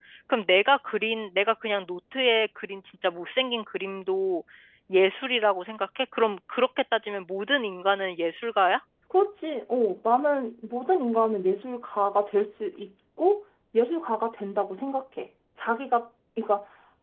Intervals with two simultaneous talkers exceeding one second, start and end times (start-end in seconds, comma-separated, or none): none